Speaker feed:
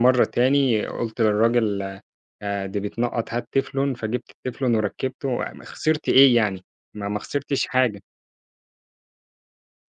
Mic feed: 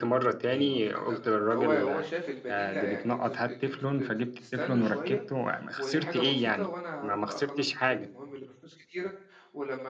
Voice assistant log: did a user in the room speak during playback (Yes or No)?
Yes